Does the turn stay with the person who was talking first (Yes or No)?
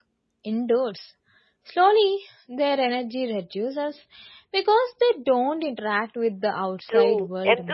No